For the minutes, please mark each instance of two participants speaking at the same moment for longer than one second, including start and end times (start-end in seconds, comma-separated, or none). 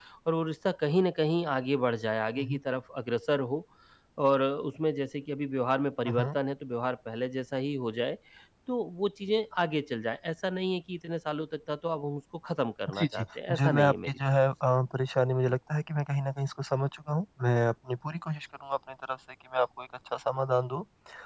12.9-14.2